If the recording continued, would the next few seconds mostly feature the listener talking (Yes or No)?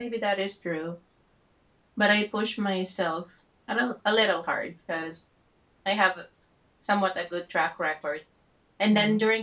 No